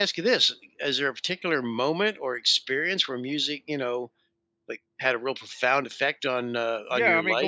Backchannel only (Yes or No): No